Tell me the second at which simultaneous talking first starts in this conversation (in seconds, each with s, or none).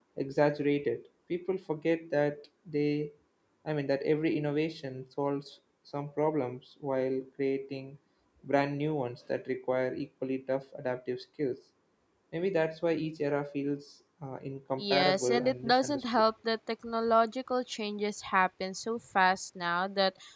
14.8 s